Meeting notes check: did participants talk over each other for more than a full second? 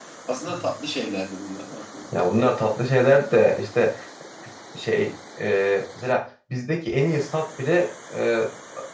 No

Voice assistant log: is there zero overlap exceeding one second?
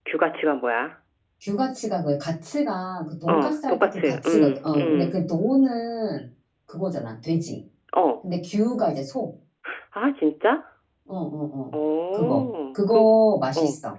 No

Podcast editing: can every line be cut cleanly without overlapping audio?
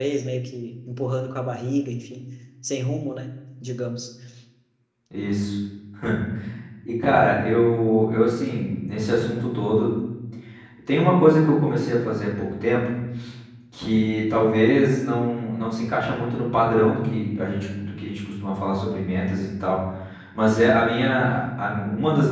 Yes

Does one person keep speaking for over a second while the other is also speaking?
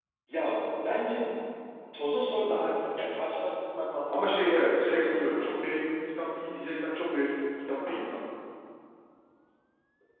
Yes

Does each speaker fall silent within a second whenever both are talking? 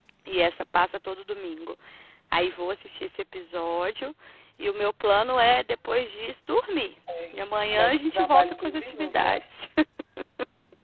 No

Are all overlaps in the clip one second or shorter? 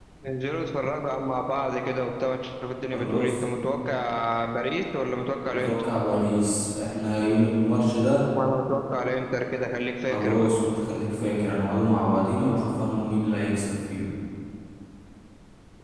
Yes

